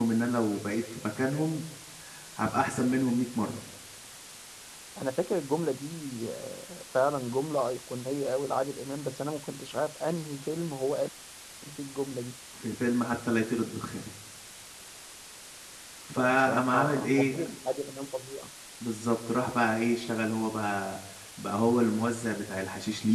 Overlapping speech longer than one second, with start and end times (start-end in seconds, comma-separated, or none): 16.2-17.4